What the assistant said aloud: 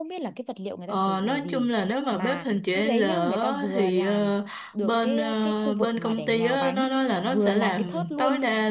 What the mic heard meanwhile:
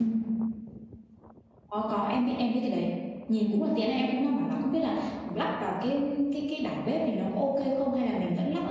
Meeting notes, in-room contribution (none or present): present